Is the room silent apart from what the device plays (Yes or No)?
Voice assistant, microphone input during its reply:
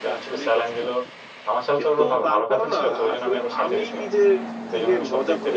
No